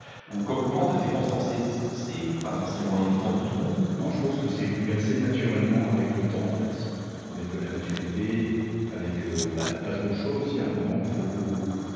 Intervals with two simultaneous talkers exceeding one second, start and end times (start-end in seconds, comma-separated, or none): none